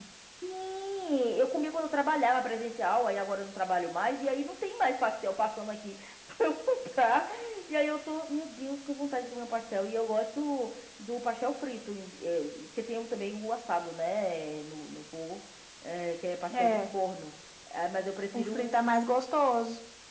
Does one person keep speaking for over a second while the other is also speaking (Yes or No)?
No